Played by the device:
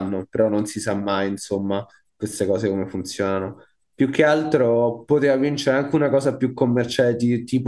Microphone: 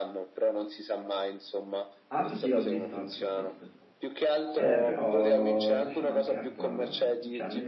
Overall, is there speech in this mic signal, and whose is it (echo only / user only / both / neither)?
both